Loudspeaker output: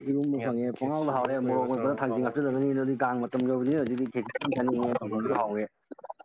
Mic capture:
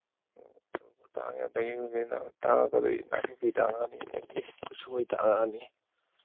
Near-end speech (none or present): present